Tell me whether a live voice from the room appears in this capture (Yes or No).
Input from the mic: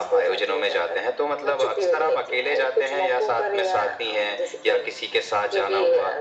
No